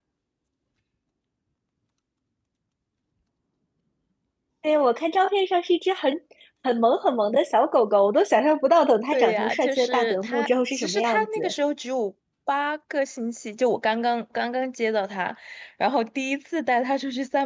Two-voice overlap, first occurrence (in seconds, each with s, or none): 9.1 s